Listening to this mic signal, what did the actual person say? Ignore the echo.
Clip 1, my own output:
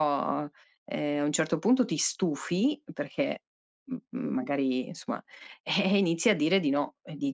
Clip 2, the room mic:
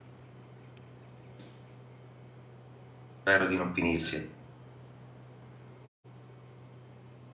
Spero di non finirci.

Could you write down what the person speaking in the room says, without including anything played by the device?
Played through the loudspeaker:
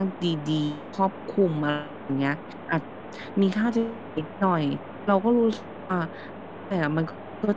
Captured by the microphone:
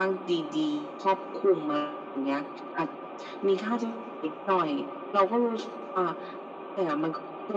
none

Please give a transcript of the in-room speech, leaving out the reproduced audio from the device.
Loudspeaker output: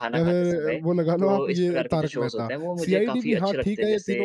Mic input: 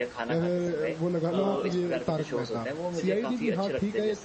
हाँ, बिल्कुल।

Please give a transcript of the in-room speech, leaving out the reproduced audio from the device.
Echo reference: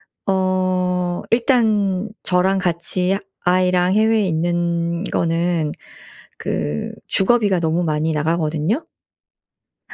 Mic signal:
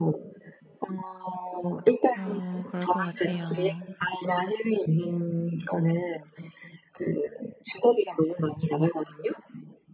어 그럴 것 같아요.

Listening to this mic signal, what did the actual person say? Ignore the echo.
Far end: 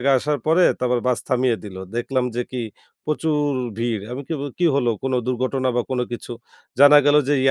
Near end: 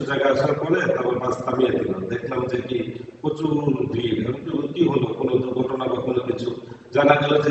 none

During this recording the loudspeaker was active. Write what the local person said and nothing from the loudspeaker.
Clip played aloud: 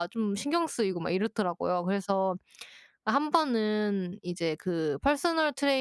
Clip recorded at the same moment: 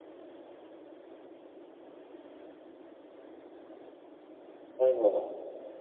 아니 뭐

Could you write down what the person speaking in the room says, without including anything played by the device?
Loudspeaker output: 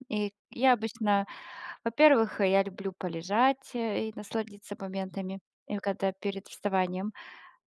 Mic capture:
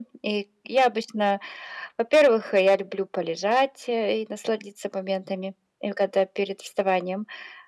none

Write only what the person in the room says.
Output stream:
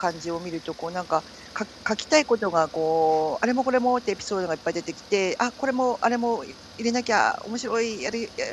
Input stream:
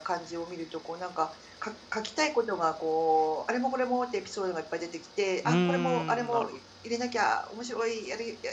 うーん、なる

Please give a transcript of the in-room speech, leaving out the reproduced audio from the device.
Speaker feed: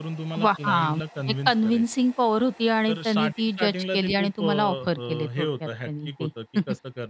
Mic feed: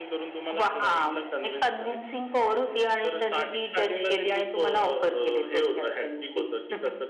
none

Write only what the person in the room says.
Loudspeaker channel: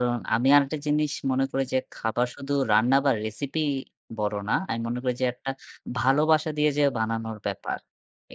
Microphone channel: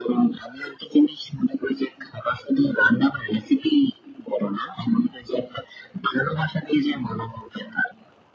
none

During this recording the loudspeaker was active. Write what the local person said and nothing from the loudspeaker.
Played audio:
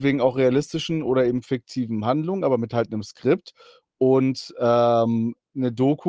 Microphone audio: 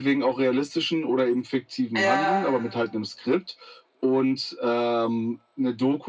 Ja.

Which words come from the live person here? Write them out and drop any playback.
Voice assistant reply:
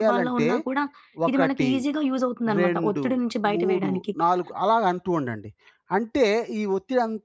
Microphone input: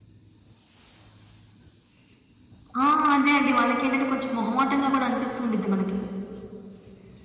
ఆ! అదే అండి. వాళ్ళకేంటంటే కొంచెం మొహమాటంగా కూడా అనిపిస్తూ ఉండిద్ది మనకి.

